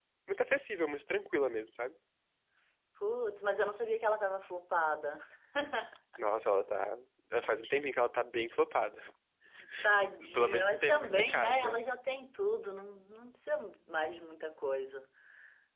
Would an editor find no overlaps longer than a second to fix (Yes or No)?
No